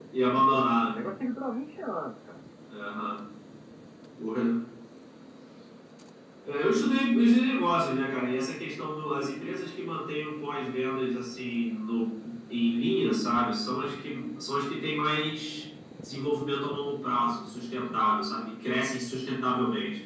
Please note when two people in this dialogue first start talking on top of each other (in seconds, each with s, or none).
none